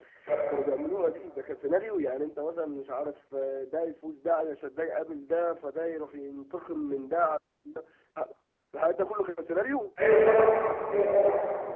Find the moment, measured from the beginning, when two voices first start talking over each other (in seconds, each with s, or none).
none